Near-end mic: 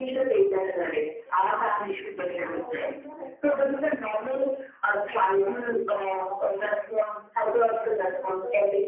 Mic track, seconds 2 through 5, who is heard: both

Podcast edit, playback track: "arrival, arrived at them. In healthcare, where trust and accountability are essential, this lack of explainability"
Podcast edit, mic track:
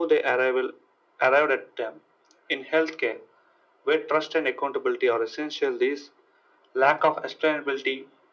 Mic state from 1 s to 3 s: echo only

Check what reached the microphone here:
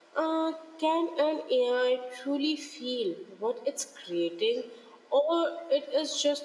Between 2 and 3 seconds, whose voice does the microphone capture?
user only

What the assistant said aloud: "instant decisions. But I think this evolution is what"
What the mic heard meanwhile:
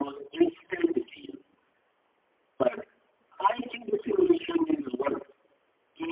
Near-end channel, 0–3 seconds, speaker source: echo only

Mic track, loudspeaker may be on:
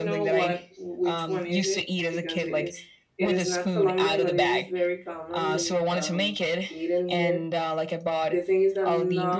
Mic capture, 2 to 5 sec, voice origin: both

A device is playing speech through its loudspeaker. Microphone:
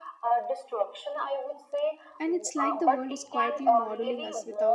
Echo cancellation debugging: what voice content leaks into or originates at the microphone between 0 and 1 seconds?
echo only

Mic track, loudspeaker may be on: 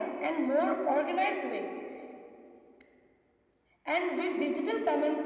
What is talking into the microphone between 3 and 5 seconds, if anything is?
echo only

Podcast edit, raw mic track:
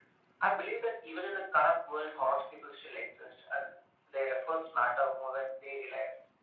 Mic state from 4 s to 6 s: echo only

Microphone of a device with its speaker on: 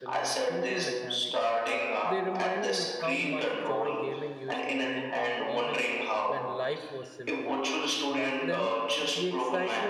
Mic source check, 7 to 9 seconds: both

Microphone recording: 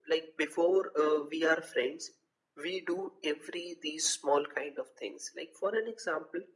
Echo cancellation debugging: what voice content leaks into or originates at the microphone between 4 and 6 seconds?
echo only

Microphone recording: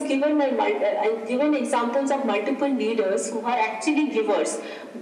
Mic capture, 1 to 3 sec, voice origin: echo only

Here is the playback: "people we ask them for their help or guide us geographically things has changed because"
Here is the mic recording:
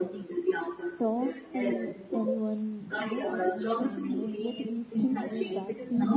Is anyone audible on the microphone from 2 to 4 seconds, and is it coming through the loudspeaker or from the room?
both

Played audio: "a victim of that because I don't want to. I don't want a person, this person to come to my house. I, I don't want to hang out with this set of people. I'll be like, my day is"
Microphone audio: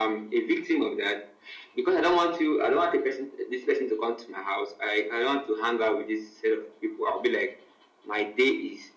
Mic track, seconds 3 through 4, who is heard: echo only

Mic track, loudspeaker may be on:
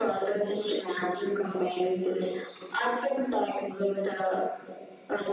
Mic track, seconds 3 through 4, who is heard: echo only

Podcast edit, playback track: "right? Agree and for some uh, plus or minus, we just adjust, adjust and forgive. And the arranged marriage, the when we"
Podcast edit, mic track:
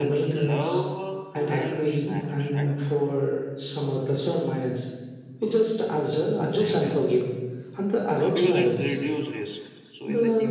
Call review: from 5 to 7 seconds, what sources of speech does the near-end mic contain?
both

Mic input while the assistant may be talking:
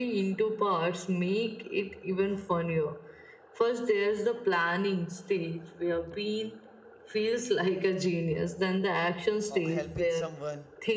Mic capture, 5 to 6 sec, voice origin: echo only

